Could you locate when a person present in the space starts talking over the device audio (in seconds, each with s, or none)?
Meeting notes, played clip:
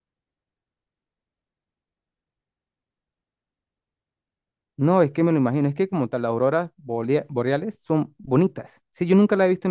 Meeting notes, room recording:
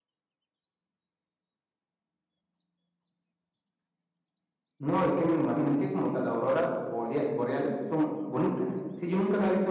none